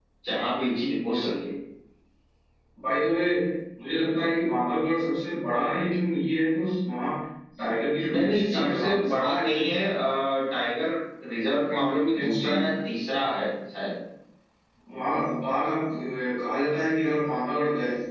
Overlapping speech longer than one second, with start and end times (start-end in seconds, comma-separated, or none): 8.1-9.6